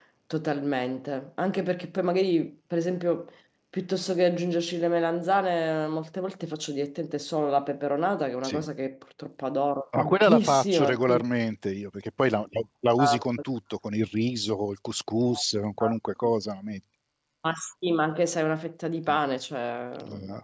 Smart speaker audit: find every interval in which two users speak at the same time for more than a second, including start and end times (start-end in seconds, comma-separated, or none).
10.0-11.2